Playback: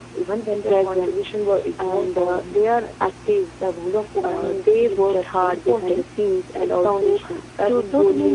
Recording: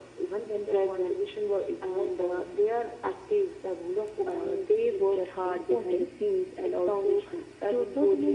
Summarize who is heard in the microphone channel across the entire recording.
echo only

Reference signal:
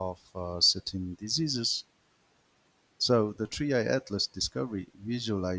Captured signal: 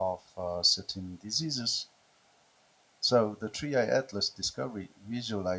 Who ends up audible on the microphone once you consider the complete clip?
echo only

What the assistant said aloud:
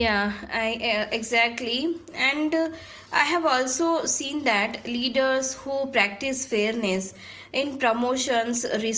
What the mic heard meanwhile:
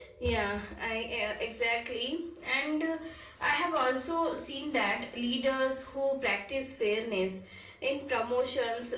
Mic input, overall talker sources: echo only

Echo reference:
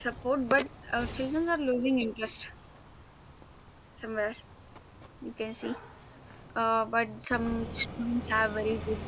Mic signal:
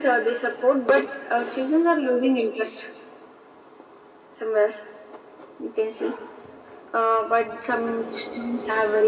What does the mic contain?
echo only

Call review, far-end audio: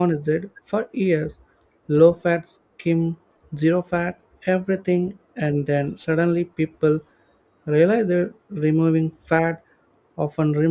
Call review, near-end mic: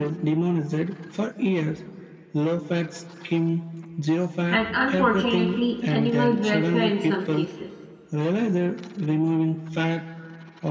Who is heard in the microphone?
both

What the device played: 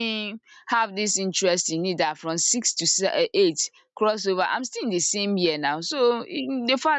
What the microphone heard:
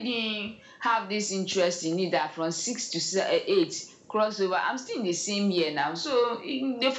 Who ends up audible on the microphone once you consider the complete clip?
echo only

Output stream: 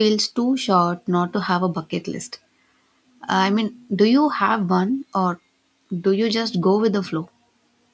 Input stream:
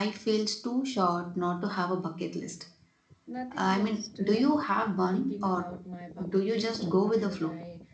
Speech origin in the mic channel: both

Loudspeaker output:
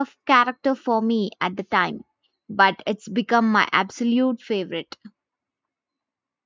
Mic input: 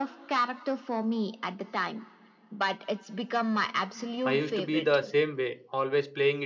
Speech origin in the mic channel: both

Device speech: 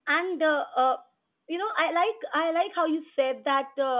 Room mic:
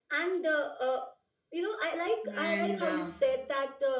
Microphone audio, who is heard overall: both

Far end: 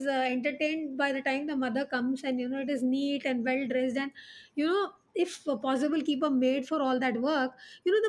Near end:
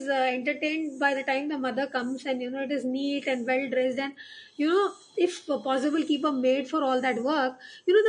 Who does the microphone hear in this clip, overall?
echo only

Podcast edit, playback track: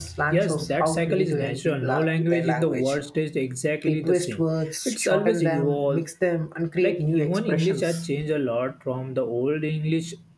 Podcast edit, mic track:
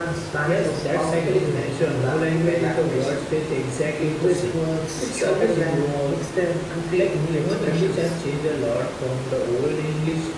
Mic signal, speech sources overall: echo only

